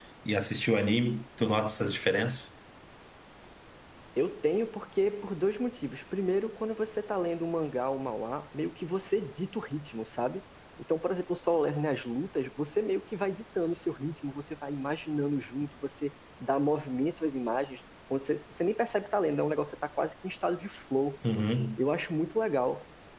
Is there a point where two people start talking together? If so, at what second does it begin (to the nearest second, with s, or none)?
none